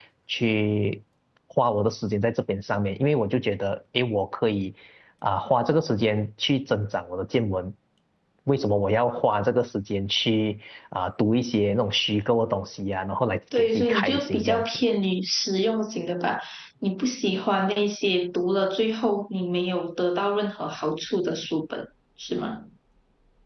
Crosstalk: present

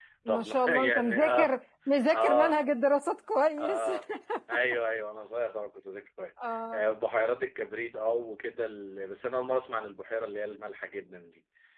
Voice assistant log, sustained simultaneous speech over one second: present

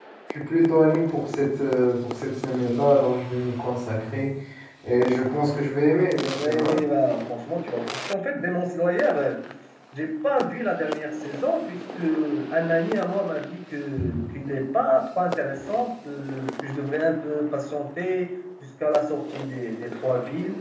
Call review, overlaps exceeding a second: none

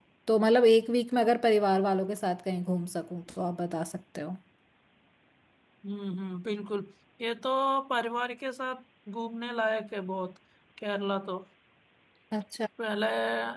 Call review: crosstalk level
none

